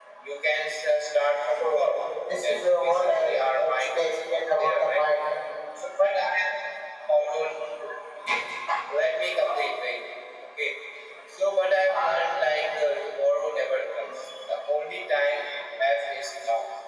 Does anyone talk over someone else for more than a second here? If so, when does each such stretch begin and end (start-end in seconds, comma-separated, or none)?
2.4-4.0